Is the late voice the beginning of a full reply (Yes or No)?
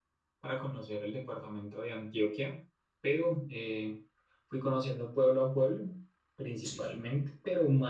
No